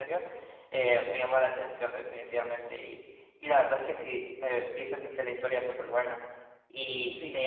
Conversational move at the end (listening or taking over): listening